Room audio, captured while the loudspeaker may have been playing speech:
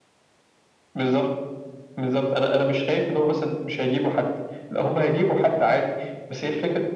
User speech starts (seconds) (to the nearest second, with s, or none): none